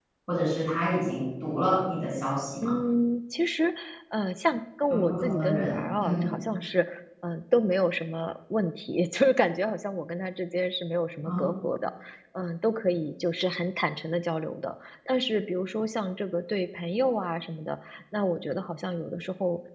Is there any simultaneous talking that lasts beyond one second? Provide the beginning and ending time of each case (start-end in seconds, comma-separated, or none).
4.9-6.3